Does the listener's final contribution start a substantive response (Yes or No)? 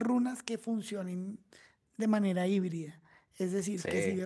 No